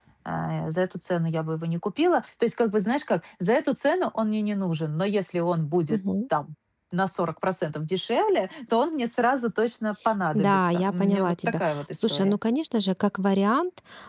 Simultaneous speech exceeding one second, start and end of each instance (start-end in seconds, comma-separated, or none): 10.3-12.4